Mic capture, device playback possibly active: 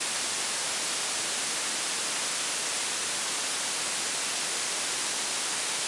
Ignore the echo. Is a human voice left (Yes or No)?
No